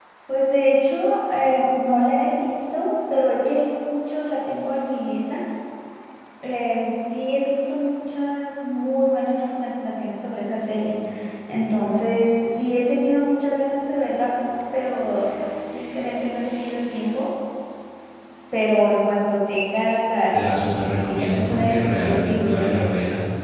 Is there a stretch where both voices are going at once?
Yes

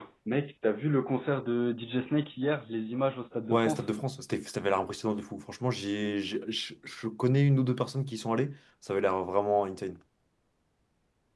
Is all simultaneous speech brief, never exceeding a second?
Yes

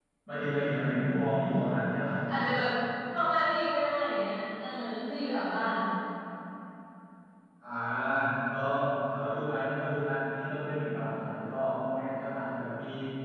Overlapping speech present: No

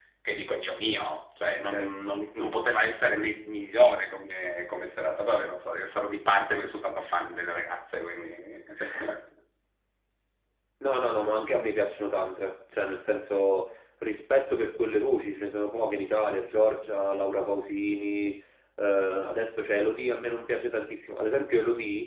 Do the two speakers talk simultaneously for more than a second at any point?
No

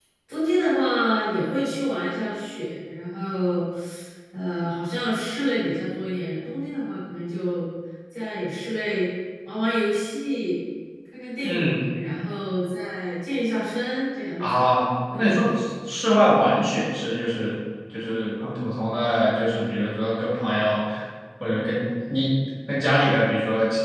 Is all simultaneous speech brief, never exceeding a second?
Yes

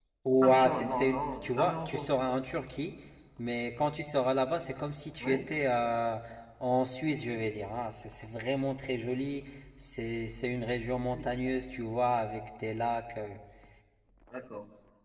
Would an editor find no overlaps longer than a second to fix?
No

